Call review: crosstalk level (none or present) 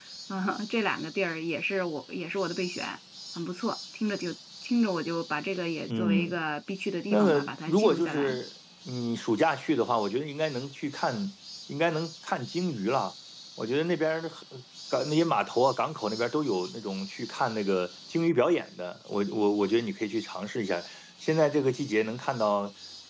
present